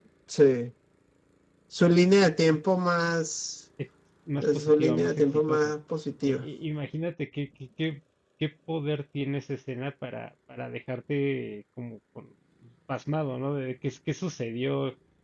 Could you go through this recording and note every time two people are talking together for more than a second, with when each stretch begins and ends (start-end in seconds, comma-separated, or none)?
4.4-5.7